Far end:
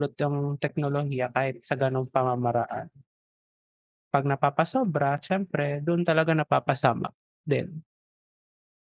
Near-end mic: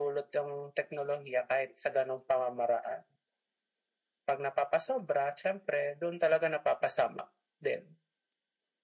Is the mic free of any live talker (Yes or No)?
Yes